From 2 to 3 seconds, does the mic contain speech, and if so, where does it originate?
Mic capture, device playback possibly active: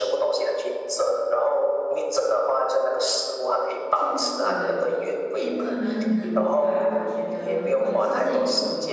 echo only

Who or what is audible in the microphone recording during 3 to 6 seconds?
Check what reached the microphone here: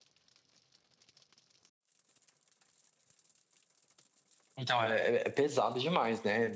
user only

